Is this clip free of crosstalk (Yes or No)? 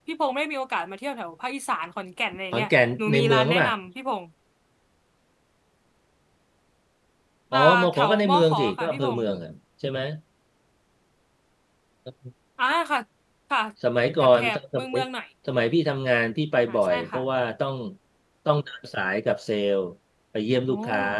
No